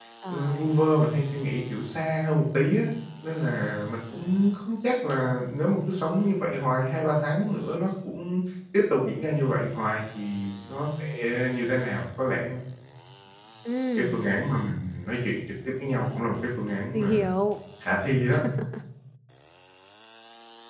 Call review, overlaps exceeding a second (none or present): none